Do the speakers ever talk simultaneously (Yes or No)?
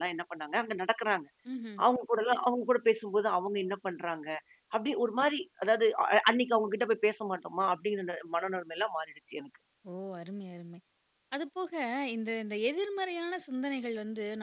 No